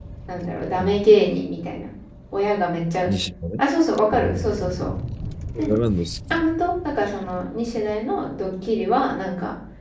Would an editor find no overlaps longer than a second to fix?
Yes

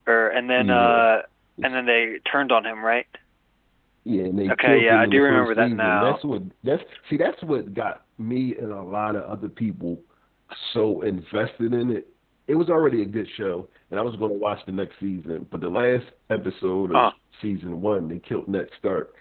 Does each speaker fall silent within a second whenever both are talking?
No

